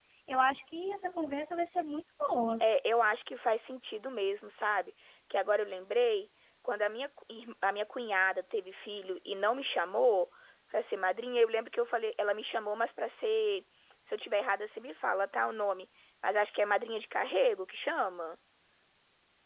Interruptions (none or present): none